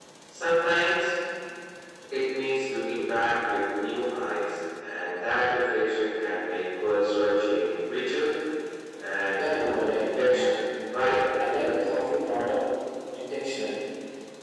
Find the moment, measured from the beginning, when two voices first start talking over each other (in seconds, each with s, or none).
9.4 s